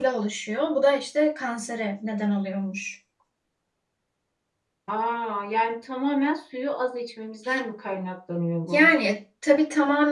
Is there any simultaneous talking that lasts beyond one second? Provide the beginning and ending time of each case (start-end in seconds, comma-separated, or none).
none